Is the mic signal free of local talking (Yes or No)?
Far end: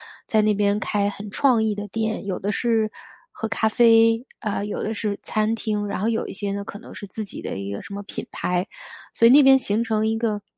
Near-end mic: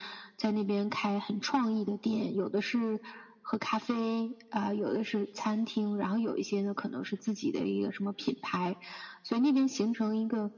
Yes